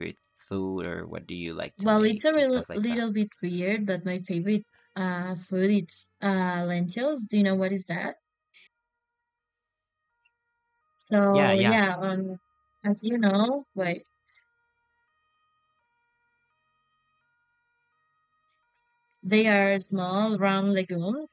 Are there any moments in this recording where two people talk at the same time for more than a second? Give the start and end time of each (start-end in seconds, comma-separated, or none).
1.8-3.0